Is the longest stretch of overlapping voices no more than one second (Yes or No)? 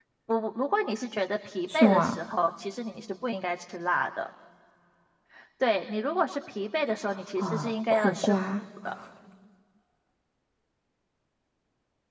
No